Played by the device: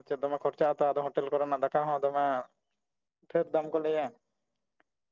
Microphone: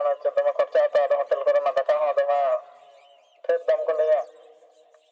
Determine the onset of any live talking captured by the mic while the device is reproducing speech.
none

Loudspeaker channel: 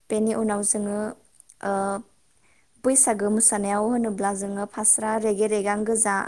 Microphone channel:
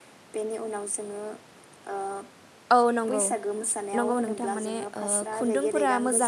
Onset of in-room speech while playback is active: 2.8 s

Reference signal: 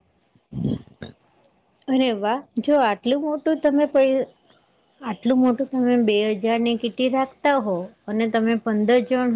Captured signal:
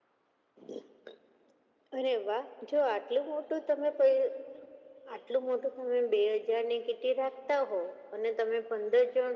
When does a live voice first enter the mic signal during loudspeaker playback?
none

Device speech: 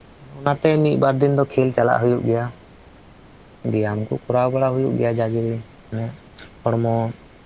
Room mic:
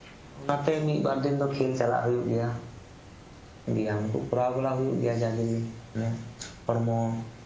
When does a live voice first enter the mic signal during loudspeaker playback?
none

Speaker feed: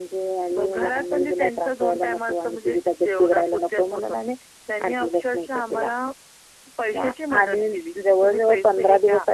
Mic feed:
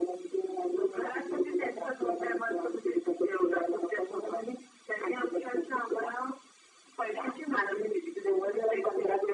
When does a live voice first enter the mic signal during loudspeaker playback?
none

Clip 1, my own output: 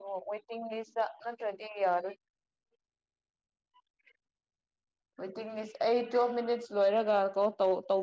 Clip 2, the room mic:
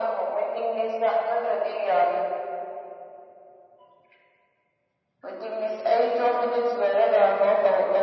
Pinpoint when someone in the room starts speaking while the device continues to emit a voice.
none

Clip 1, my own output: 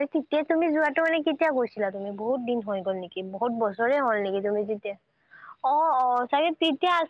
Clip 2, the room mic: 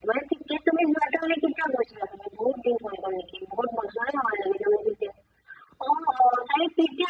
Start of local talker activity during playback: none

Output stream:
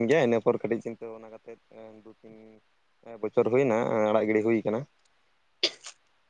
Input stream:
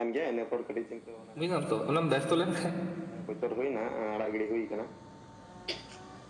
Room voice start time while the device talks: 1.4 s

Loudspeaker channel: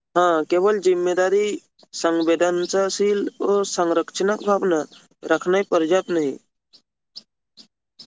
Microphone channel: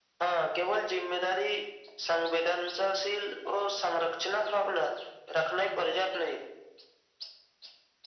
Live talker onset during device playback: none

